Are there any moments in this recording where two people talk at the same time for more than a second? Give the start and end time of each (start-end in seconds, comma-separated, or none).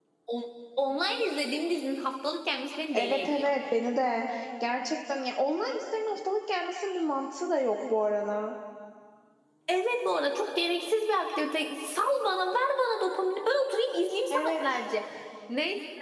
none